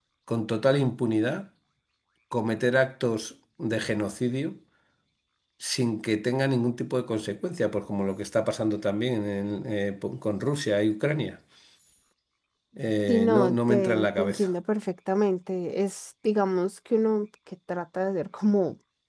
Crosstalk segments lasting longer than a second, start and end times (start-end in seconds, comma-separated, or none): 13.1-14.5